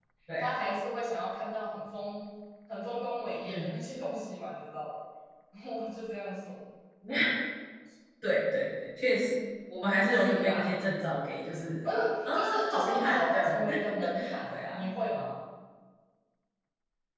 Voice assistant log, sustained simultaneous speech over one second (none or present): present